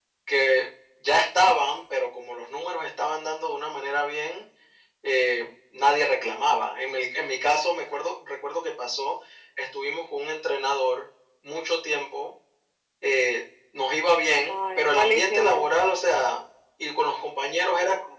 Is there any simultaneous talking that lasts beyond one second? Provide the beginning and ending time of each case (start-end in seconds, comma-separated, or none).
14.5-15.7